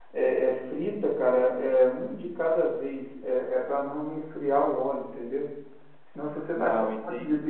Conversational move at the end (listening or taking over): listening